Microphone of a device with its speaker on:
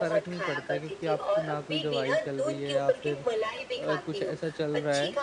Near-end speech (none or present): present